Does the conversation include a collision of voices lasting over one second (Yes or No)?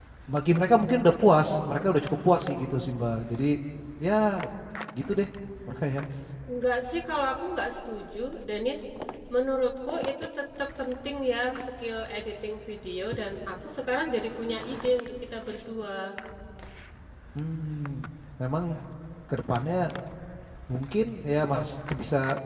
No